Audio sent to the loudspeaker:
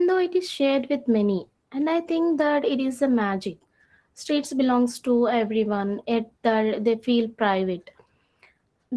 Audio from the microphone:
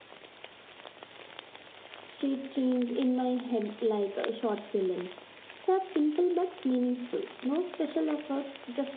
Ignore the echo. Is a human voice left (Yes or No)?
Yes